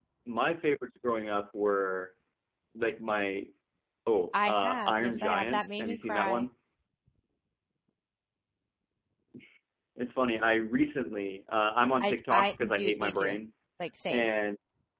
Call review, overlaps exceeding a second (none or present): present